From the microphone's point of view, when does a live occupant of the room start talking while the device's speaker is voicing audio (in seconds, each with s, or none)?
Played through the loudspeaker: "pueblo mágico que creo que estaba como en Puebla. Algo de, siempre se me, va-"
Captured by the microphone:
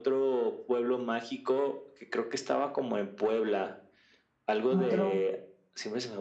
4.7 s